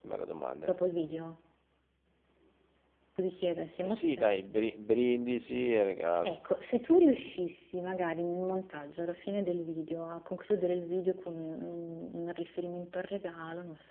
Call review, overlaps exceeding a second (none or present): none